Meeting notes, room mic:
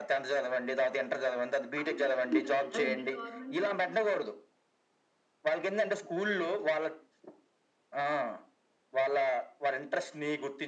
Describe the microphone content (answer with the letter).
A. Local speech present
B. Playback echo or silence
A